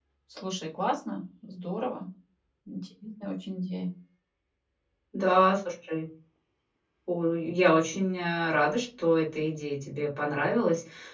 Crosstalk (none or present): none